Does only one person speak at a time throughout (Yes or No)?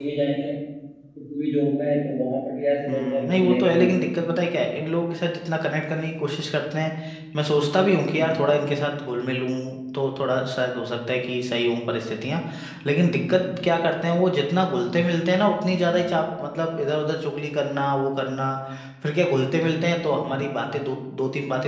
No